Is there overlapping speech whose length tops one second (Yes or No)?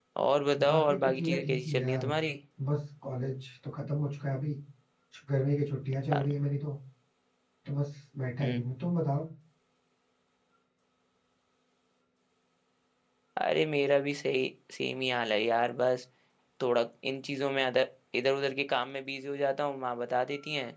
Yes